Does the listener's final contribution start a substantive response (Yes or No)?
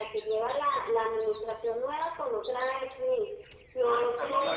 Yes